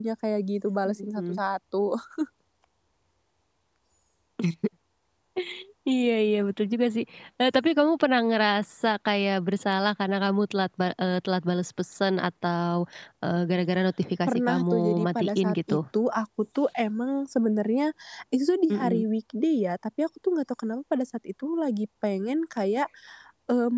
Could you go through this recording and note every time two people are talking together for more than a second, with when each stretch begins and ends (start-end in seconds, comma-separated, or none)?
14.3-15.8